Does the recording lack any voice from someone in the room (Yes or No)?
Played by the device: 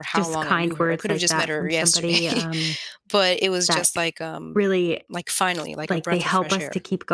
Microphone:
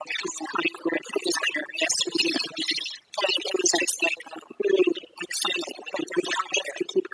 Yes